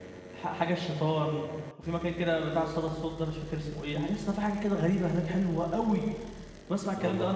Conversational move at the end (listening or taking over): listening